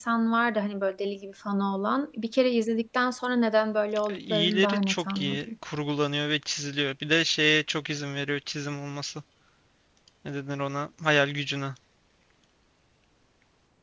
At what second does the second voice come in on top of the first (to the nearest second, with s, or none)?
4 s